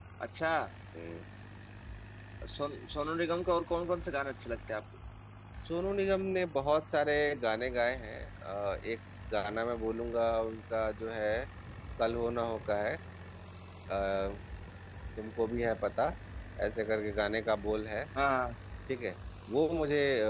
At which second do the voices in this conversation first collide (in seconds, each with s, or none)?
none